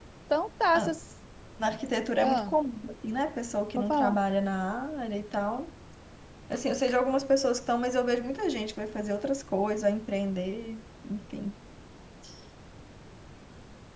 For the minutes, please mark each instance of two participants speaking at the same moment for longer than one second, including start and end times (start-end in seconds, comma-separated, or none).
none